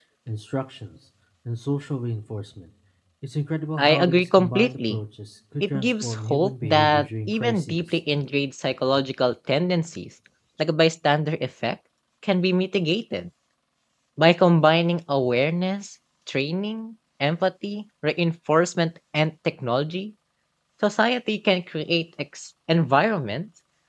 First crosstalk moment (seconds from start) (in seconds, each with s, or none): 3.8 s